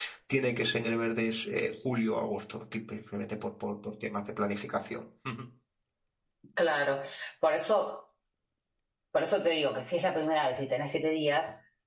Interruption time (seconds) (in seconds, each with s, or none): none